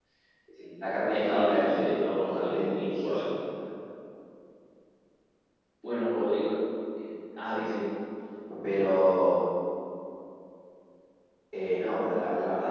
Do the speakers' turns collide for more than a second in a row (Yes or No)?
Yes